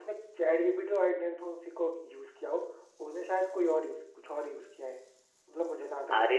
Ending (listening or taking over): taking over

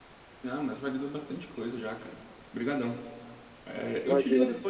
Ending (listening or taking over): listening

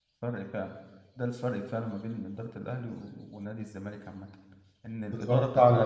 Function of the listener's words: listening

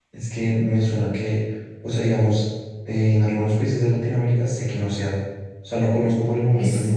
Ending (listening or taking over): listening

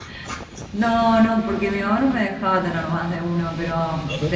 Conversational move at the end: listening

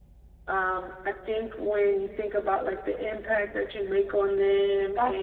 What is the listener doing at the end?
listening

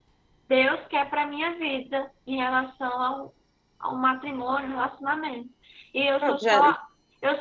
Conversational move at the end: listening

